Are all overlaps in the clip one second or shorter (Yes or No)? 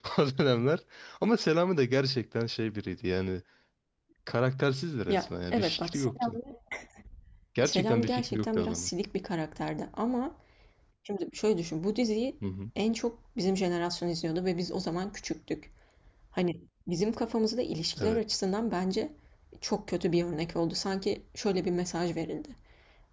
No